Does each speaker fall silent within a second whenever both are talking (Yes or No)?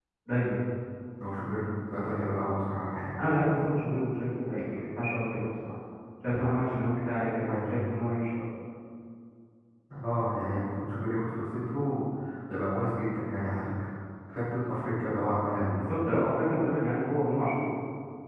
Yes